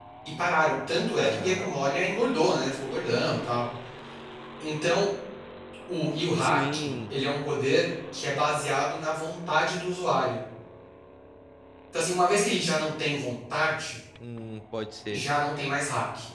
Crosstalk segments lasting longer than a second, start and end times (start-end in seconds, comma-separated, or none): none